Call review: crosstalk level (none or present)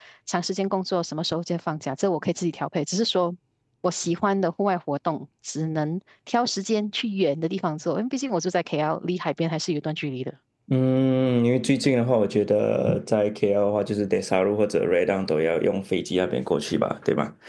none